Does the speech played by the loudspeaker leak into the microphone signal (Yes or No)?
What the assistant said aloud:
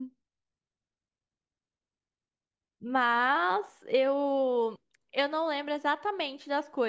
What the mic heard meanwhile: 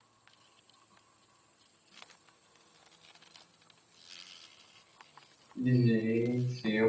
No